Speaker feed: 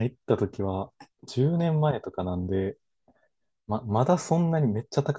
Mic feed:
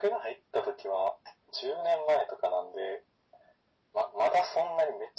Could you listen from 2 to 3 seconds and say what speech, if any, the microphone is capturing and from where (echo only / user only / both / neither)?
echo only